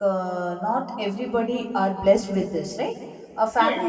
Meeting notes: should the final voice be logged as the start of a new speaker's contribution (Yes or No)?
No